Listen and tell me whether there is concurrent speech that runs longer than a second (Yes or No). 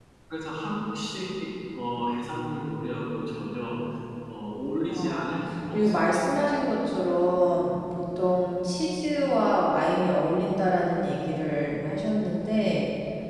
Yes